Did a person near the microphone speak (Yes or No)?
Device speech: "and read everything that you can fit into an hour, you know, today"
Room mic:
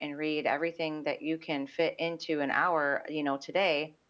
No